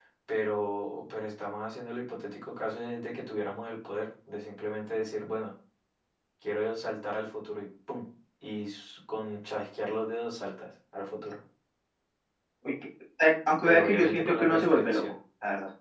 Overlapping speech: Yes, from 13.6 s

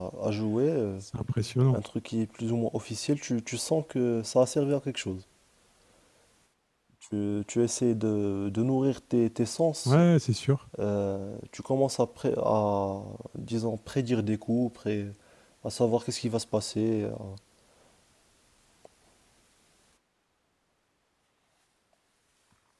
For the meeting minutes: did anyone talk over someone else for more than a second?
No

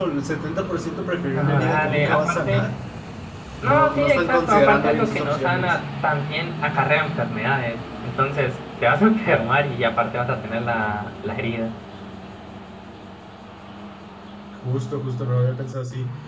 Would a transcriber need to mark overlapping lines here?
Yes, from 1.3 s

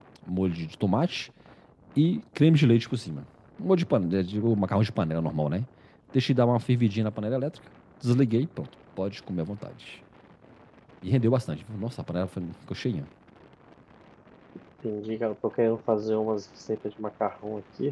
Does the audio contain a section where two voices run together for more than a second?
No

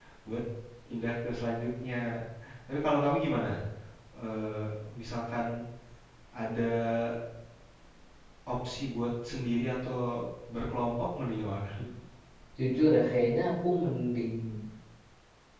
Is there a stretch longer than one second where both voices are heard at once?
No

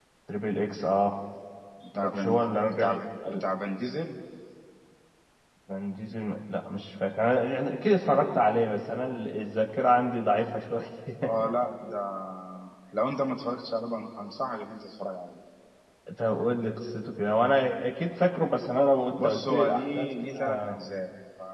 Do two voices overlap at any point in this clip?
Yes, from 1.9 s

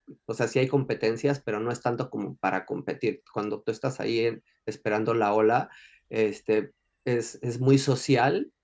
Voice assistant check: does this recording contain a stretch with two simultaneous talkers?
No

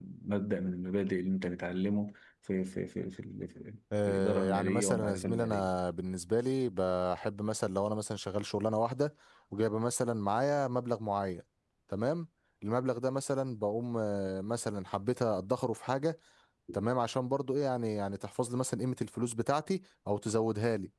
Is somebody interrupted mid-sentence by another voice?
Yes, from 4.1 s

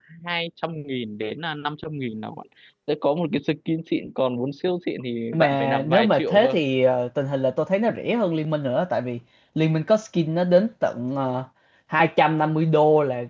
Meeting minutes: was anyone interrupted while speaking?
Yes, from 5.3 s

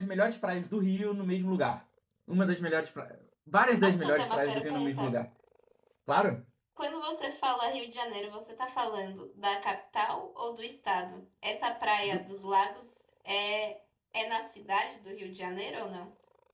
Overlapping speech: Yes, from 3.8 s

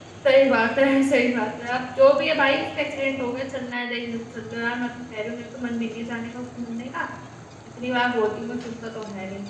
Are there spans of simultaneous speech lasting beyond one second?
No

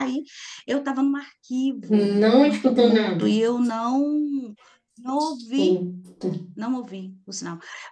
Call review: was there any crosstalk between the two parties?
Yes, from 1.8 s

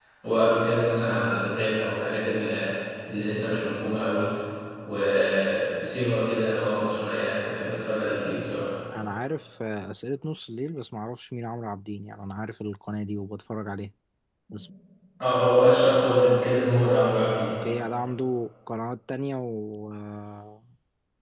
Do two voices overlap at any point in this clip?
No

